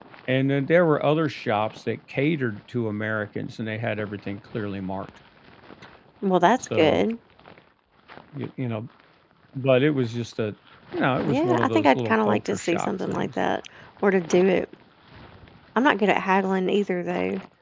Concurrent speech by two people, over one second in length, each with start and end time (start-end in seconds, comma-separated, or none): 11.3-13.3